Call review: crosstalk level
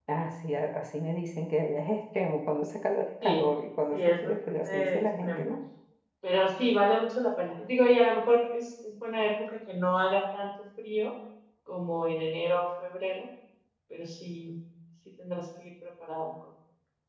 present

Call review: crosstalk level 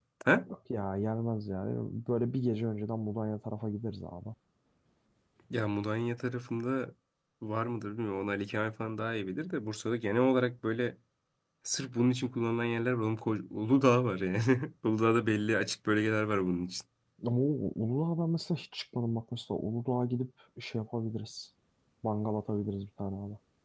none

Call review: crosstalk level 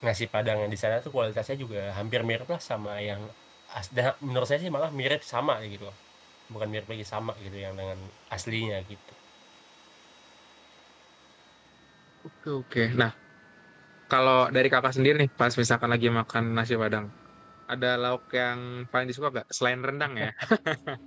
none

